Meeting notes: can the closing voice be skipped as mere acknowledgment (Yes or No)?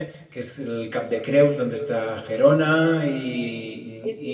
No